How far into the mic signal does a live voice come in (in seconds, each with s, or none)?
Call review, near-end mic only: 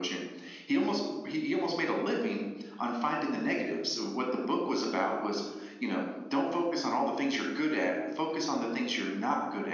none